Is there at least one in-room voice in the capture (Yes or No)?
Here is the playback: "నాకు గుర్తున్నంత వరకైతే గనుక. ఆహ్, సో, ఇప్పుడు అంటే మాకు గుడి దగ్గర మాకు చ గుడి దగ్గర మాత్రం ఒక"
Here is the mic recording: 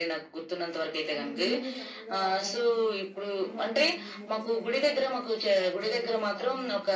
Yes